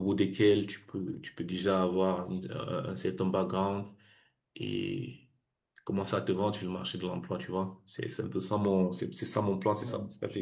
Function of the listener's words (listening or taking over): taking over